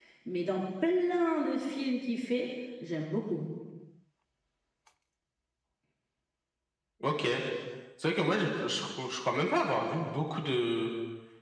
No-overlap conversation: Yes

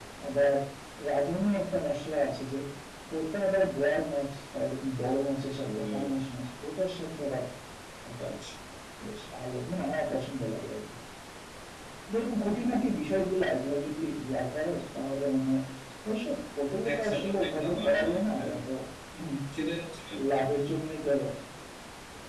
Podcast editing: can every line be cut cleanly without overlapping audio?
No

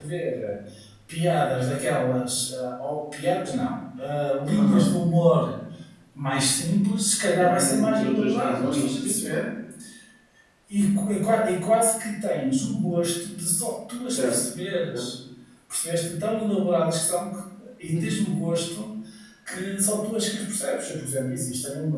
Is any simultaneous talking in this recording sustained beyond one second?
Yes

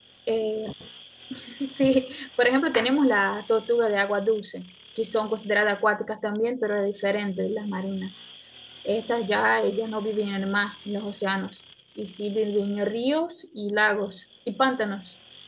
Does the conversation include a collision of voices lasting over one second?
No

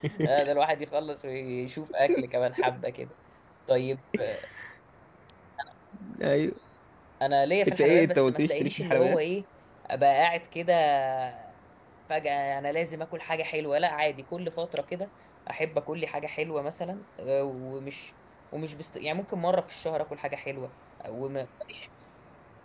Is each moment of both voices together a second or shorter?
No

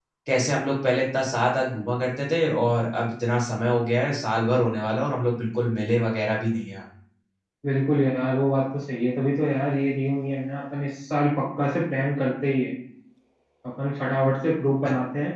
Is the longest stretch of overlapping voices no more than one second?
Yes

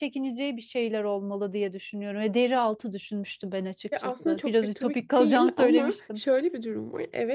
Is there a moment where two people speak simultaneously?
Yes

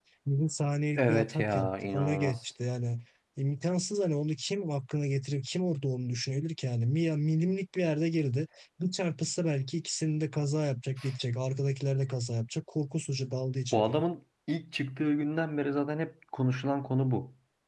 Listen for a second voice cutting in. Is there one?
Yes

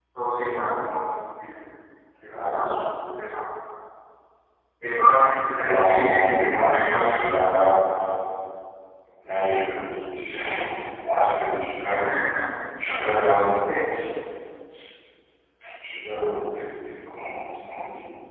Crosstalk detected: Yes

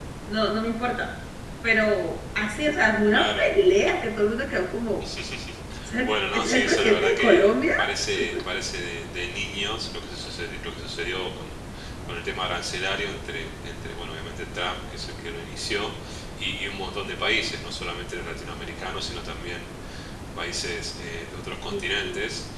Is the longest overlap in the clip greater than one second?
Yes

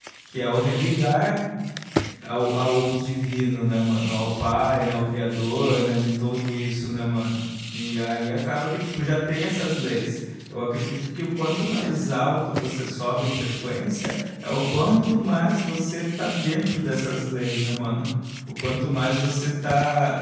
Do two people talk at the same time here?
No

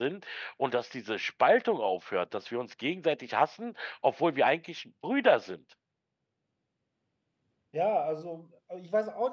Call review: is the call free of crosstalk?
Yes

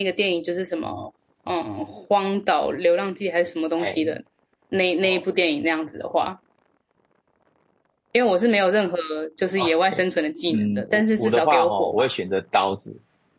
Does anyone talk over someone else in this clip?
Yes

